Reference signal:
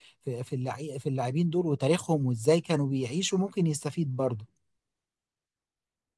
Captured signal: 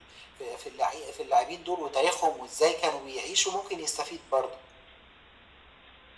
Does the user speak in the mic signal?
No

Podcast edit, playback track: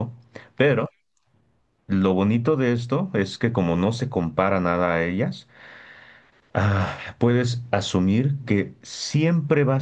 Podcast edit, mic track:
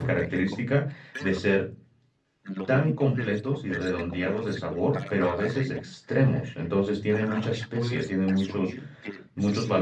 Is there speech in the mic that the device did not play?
Yes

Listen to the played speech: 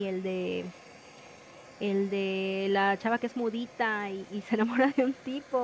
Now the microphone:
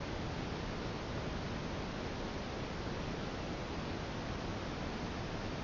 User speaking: No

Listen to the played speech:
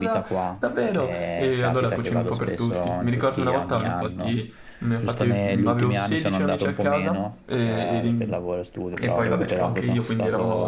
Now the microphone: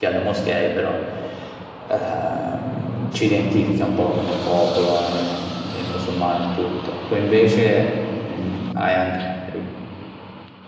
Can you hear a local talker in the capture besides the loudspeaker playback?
Yes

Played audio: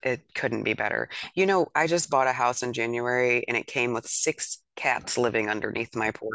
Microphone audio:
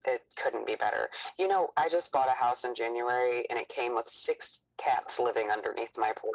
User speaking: No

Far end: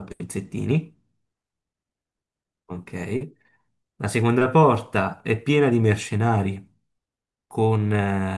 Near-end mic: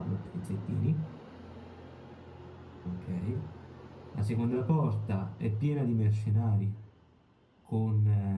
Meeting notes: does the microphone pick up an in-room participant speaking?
No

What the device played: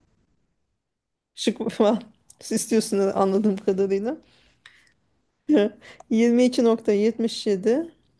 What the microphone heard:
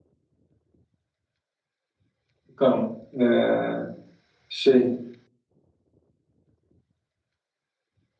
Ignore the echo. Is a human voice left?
Yes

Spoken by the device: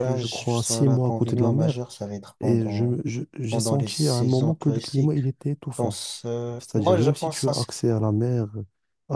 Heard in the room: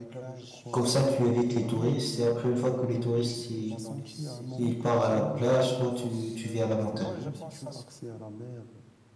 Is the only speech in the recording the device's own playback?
No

